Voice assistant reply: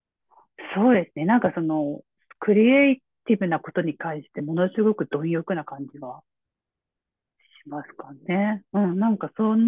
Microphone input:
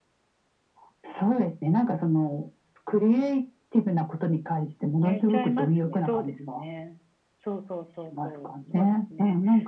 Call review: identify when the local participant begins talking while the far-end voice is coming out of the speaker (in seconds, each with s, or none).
5.0 s